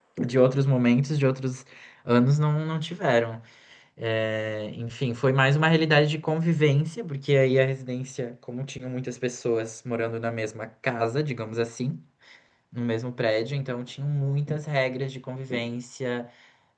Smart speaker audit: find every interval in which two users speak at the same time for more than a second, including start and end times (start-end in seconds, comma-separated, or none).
none